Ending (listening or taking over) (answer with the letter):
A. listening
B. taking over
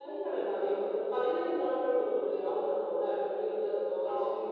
B